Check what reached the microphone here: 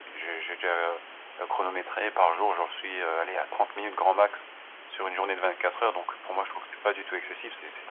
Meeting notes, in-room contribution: none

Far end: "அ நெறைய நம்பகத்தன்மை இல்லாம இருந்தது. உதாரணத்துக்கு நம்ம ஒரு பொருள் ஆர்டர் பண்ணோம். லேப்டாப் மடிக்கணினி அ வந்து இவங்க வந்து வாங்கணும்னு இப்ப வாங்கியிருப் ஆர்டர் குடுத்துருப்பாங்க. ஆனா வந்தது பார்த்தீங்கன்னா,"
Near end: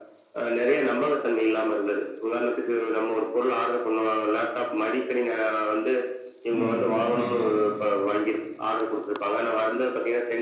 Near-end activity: present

